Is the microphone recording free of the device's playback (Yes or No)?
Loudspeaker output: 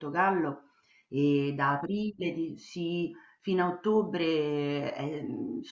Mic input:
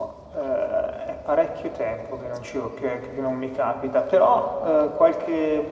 Yes